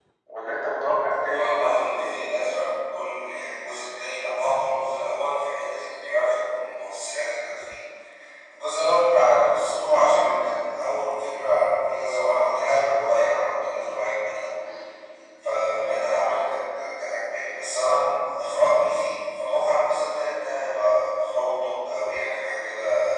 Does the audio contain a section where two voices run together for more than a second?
Yes, from 1.3 s

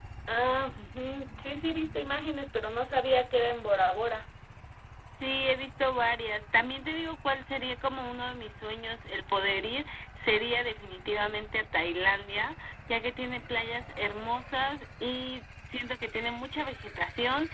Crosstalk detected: No

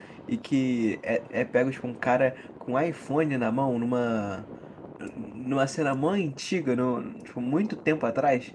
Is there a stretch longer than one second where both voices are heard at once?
No

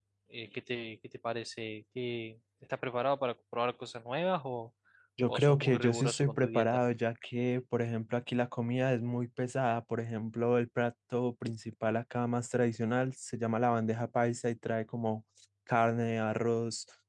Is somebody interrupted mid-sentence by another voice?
Yes, from 5.3 s

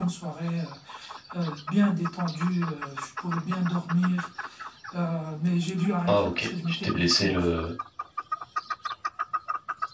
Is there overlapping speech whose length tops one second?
Yes, from 6.0 s

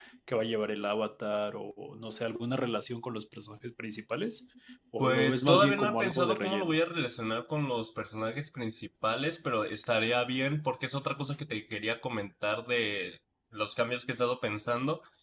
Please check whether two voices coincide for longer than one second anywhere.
Yes, from 5.0 s

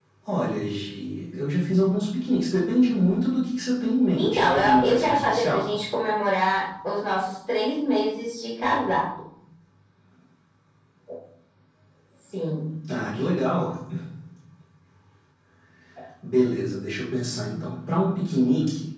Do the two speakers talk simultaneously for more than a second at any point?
Yes, from 4.2 s

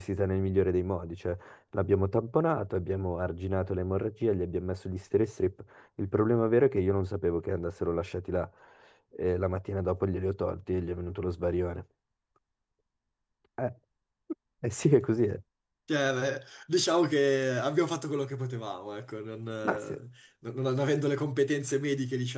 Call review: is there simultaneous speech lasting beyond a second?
No

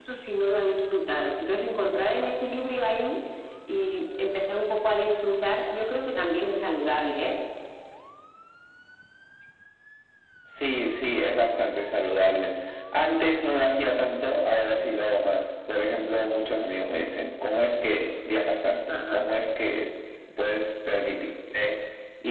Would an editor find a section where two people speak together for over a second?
No

